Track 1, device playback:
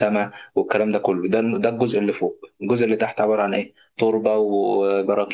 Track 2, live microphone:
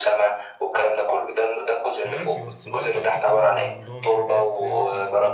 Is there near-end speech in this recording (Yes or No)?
Yes